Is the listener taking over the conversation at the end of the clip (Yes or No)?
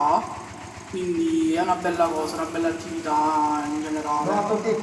Yes